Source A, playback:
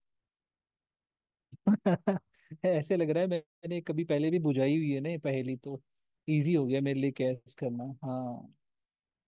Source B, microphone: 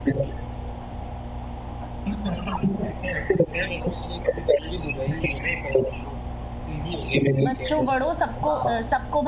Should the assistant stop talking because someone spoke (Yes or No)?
Yes